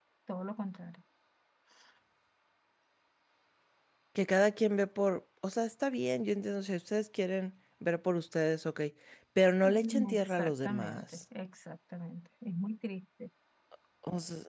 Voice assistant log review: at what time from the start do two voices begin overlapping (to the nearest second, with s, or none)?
10 s